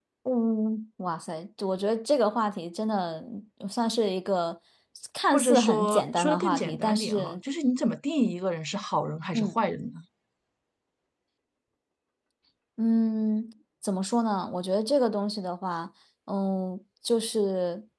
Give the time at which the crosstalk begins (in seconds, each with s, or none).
5.3 s